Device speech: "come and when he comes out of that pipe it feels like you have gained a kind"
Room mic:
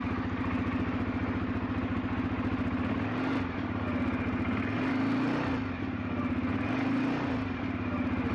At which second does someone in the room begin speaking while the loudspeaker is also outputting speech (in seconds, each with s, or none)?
none